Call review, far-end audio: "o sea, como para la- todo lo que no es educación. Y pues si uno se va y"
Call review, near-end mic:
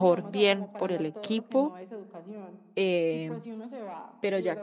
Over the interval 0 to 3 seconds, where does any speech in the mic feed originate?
both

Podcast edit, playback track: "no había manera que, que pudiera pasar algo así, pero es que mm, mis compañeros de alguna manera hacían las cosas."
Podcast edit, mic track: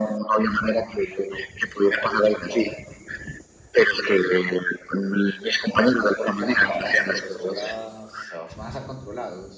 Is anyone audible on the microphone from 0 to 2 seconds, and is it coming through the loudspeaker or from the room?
echo only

